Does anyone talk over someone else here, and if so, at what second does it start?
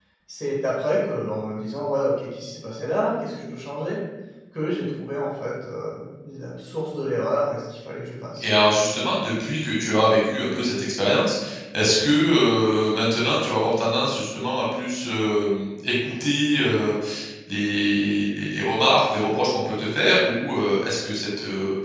none

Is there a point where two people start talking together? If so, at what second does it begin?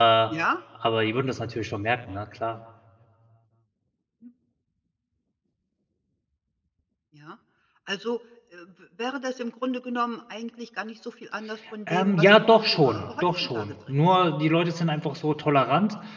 11.9 s

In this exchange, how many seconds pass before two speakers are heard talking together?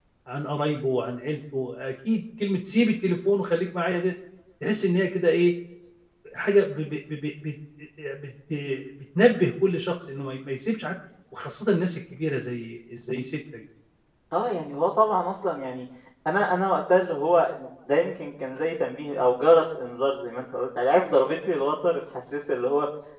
none

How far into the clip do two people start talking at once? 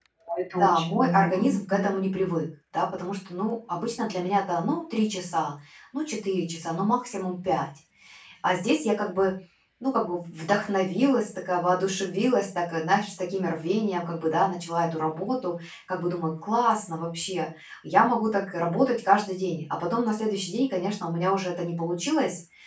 0.5 s

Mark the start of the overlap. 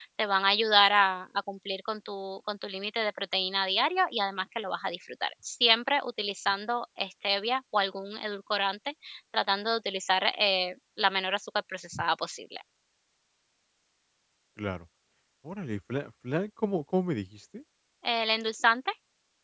none

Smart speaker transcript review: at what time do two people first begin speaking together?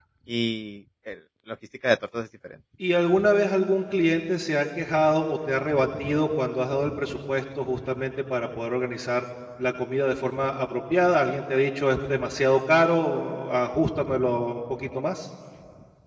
none

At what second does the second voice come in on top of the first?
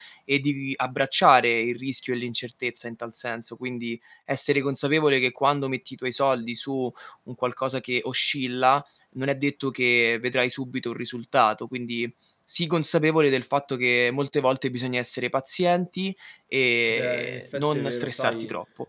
16.9 s

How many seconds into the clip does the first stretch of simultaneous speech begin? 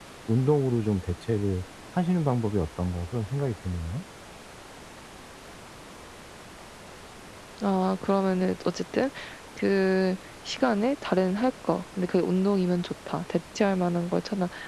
none

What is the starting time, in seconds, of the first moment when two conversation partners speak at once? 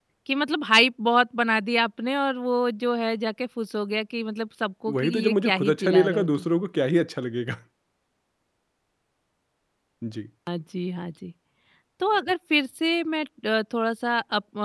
4.9 s

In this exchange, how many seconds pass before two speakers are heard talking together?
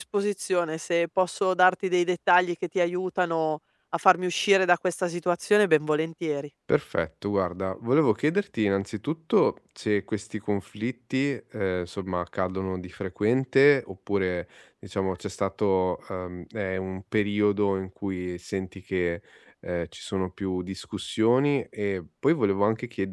none

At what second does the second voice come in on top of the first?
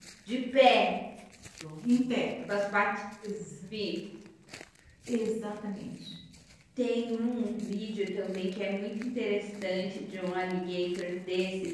none

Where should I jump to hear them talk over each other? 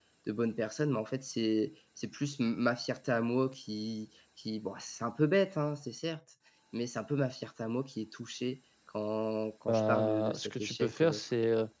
9.7 s

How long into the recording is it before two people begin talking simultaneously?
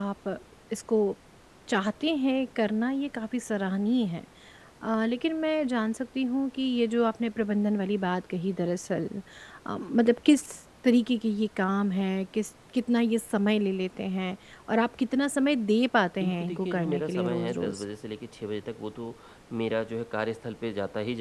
16.2 s

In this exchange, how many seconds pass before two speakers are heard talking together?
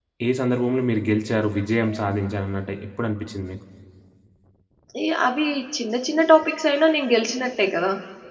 none

